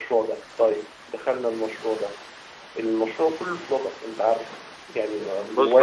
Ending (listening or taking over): taking over